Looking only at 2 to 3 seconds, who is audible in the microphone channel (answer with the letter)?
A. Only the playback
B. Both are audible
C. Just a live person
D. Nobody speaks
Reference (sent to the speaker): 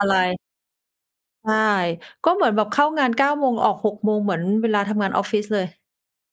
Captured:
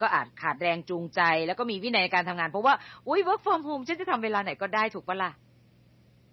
C